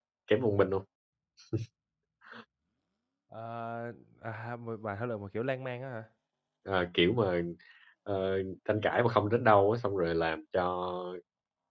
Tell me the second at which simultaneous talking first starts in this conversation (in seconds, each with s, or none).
none